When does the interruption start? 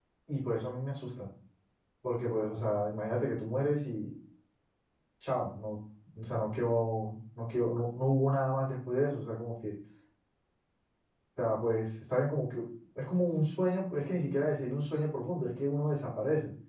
none

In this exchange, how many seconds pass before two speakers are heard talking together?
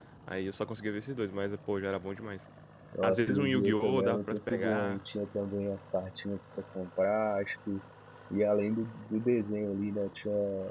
3.0 s

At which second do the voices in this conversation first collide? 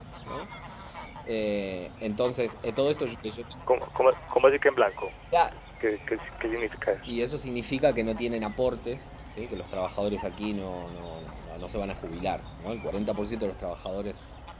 none

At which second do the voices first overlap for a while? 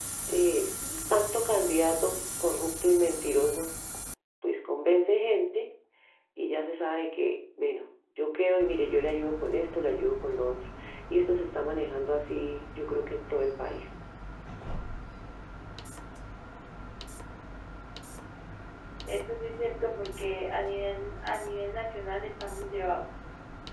none

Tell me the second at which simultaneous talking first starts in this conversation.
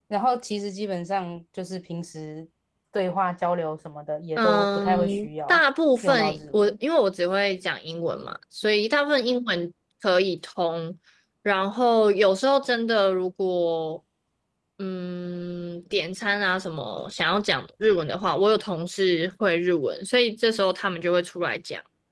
4.4 s

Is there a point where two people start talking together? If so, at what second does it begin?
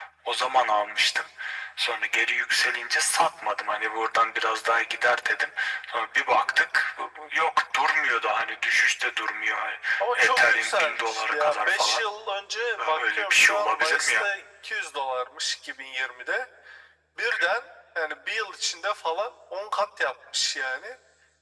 10.2 s

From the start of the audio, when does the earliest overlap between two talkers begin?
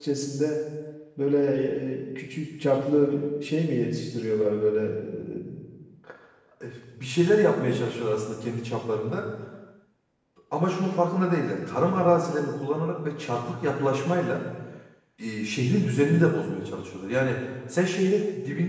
none

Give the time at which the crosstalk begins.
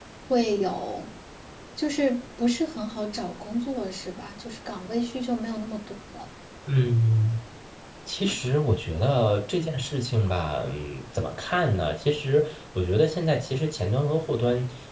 none

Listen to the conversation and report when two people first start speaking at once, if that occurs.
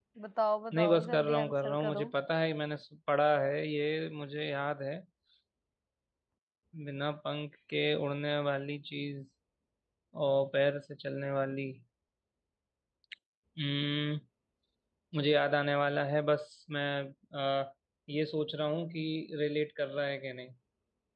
0.7 s

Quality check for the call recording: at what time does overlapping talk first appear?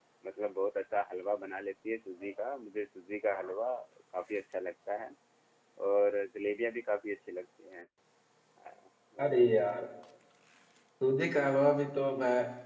none

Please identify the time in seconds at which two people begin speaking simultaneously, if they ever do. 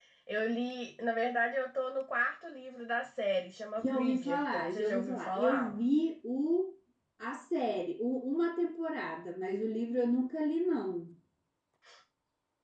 3.8 s

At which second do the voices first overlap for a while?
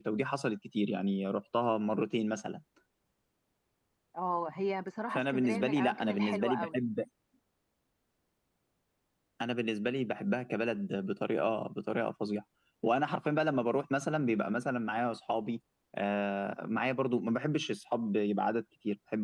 5.2 s

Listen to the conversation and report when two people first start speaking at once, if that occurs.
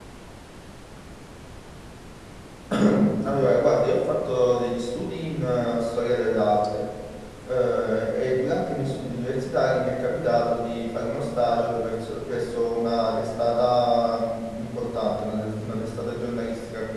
none

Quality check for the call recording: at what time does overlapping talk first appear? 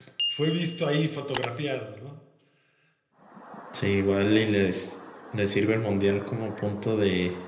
none

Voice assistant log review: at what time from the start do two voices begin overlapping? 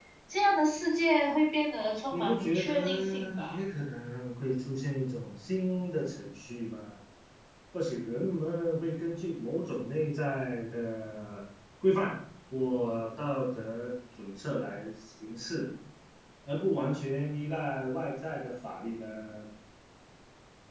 2.1 s

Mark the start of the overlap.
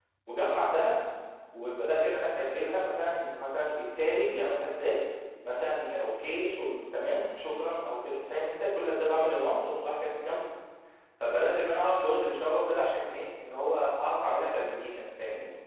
none

